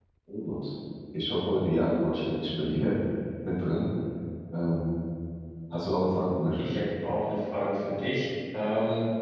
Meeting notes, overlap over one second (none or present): none